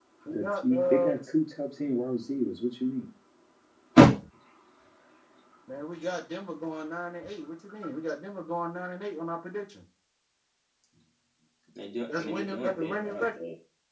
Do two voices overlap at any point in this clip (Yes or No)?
Yes